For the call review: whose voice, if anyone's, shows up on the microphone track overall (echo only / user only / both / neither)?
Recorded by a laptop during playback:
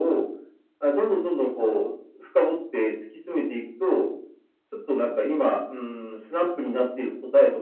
both